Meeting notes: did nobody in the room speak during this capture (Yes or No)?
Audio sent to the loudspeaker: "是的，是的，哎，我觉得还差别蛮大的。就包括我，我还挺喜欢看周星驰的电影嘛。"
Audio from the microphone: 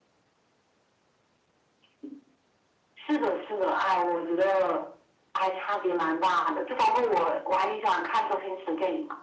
Yes